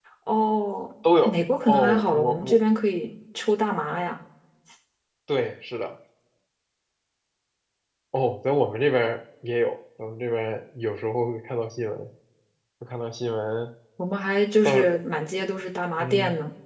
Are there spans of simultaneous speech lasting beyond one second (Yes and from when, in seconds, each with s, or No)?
Yes, from 1.2 s